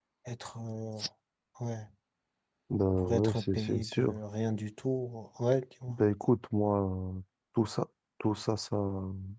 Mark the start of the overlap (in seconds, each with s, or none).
3.0 s